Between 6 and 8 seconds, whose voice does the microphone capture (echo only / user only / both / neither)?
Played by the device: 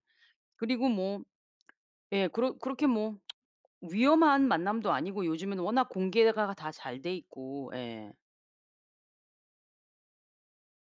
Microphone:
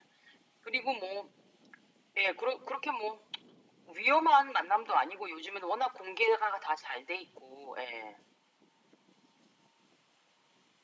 echo only